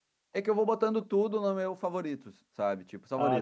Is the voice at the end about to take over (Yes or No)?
No